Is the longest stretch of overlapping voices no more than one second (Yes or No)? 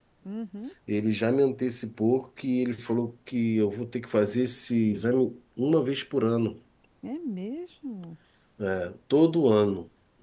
Yes